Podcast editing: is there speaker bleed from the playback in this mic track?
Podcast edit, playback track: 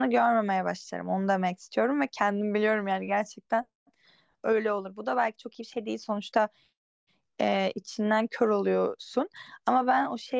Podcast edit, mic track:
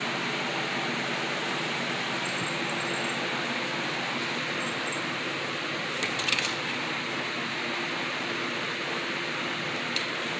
No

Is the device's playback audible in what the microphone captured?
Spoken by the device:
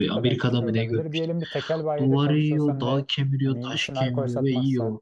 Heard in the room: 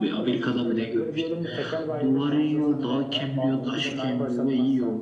Yes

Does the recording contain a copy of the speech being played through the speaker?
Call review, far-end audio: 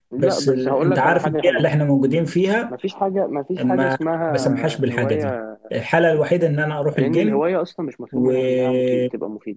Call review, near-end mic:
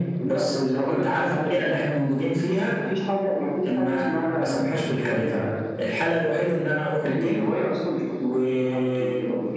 Yes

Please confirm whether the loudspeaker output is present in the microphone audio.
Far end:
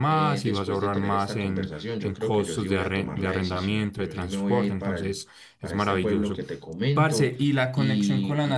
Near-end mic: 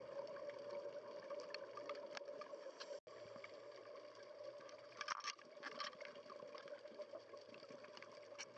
No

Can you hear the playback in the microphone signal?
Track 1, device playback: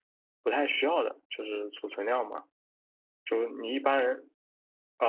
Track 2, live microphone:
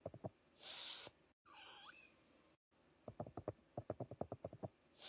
No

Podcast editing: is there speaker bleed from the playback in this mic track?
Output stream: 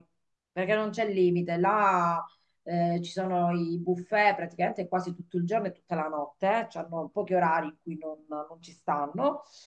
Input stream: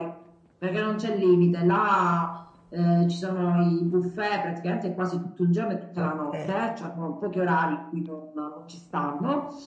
Yes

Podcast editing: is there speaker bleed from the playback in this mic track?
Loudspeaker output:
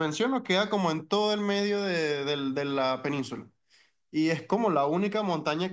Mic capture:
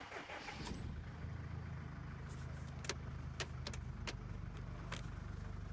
No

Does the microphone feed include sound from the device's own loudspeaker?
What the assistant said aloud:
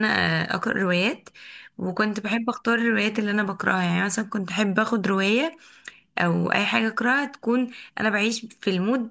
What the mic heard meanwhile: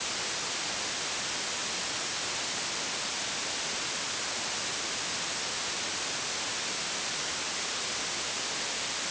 No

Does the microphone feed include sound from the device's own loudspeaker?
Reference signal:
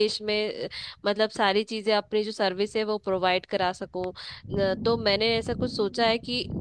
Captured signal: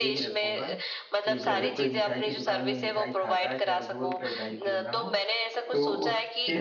Yes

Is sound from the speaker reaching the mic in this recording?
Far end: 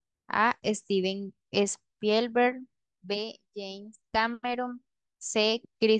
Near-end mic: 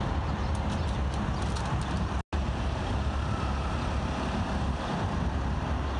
No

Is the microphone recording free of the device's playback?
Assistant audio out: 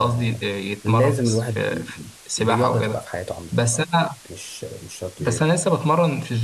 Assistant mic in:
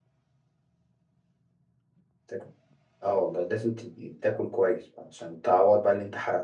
Yes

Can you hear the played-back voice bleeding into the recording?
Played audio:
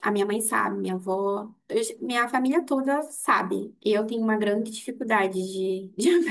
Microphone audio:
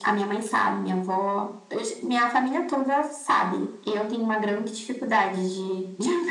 Yes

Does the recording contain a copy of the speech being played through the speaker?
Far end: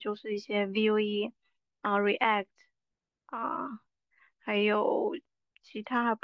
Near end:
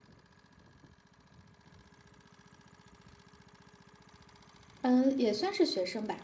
No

